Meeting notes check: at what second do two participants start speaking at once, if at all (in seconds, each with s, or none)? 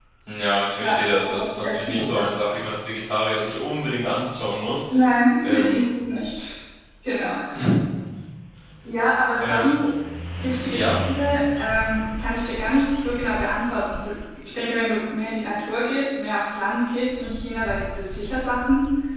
0.8 s